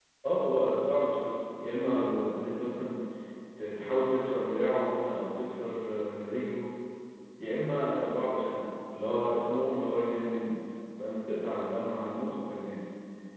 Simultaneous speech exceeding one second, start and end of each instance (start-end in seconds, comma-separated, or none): none